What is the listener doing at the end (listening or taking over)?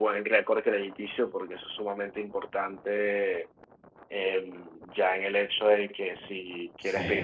listening